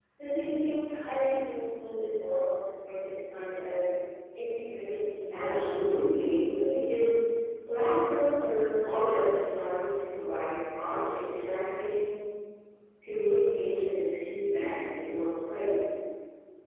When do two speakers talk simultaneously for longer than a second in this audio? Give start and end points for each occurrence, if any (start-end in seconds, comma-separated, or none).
5.3-6.8